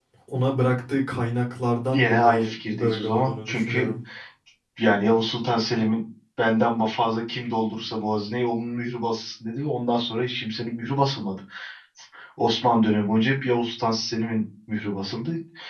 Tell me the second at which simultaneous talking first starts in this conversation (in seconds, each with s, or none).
1.9 s